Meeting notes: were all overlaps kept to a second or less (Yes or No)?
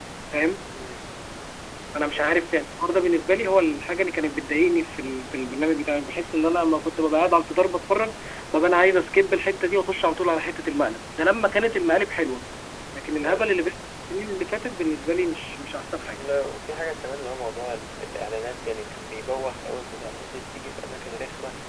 Yes